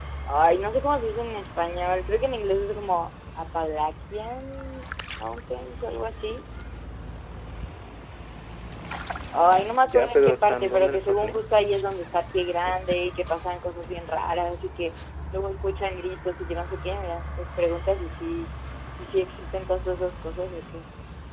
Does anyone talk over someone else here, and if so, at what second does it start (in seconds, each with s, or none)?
9.8 s